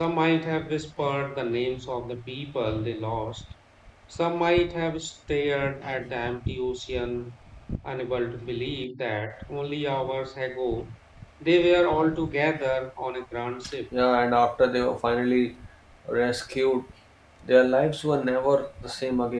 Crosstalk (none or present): none